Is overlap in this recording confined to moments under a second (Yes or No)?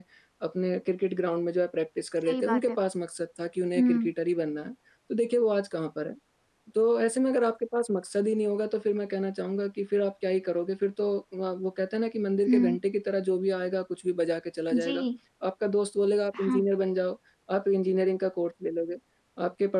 Yes